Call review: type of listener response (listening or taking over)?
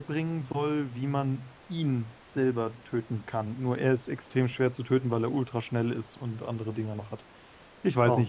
listening